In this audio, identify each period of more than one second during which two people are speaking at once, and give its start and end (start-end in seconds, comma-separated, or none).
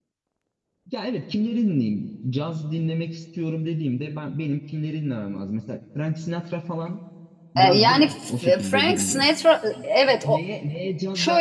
7.6-9.2